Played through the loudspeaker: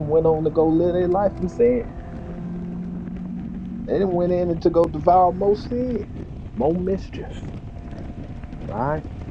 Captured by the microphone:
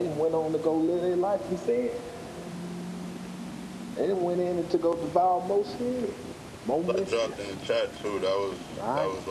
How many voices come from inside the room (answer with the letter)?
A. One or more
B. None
A